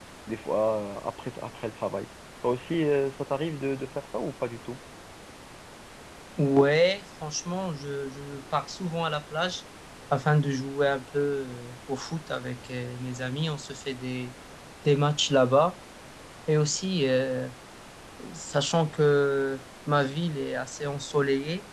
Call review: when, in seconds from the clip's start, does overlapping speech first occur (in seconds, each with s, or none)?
none